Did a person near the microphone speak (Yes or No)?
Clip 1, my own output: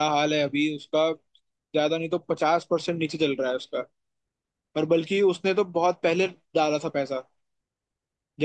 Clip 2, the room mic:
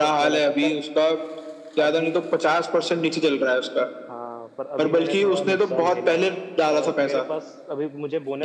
Yes